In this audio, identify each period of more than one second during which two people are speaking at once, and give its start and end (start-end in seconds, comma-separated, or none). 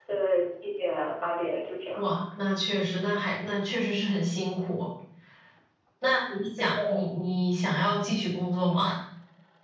none